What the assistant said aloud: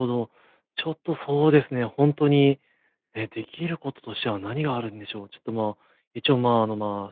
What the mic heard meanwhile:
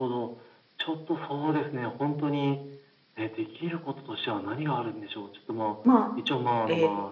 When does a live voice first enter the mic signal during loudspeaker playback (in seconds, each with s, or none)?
5.8 s